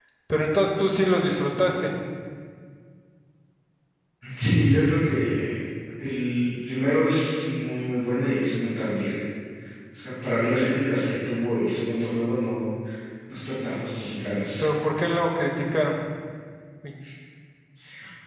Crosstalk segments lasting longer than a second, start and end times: none

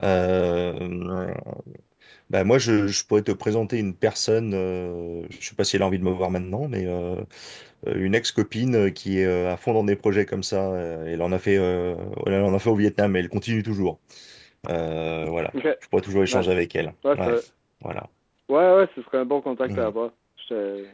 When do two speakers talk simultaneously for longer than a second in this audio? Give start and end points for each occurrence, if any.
none

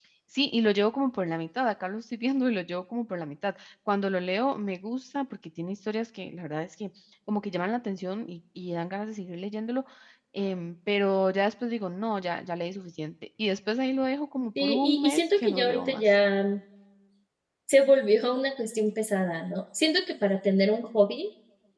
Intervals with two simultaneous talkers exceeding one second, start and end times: 14.6-16.0

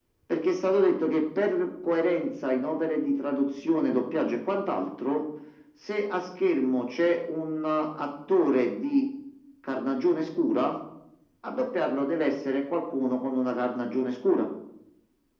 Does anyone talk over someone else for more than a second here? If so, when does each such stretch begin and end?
none

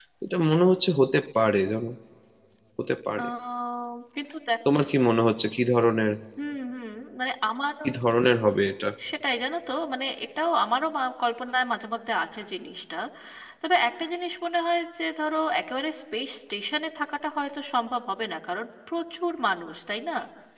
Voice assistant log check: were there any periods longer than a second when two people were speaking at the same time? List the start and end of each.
none

